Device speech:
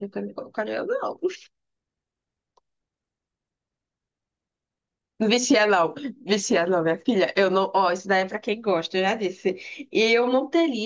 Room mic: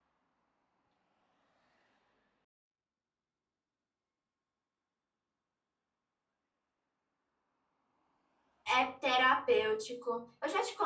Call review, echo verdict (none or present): none